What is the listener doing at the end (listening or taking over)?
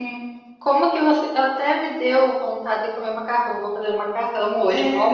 taking over